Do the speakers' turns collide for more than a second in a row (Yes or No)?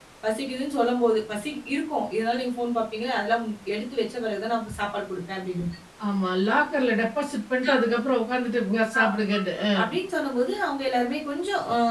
No